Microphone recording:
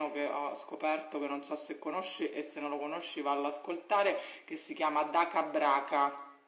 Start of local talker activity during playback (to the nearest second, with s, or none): none